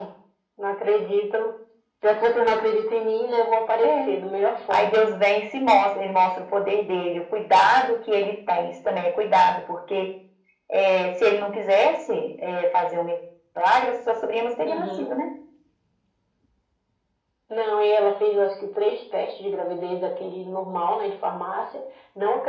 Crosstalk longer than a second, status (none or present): none